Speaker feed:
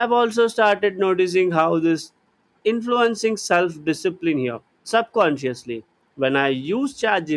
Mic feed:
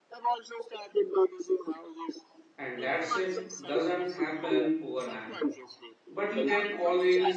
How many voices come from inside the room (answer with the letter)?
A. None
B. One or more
B